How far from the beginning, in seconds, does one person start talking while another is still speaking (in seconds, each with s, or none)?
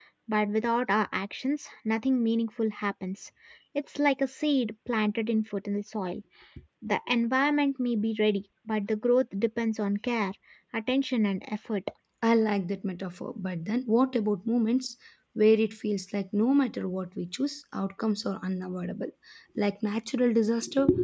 none